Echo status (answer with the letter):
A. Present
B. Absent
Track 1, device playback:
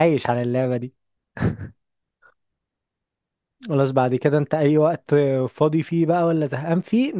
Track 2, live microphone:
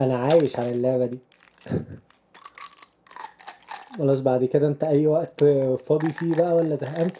A